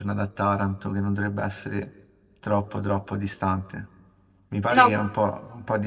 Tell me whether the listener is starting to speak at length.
No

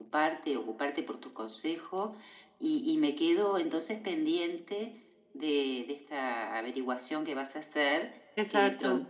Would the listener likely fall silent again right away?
Yes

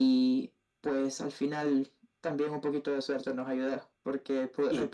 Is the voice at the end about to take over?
No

